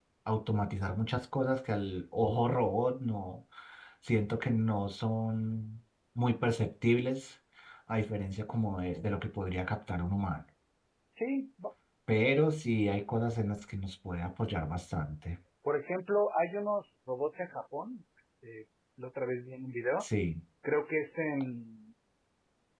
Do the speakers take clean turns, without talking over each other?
Yes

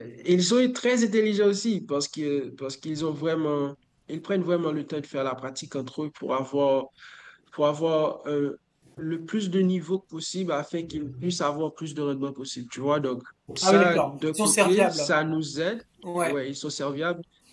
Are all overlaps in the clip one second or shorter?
No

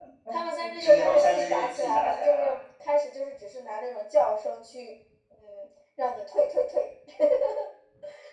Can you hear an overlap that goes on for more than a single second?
Yes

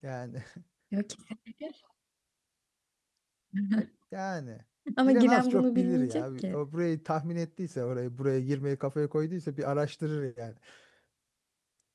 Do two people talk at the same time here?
Yes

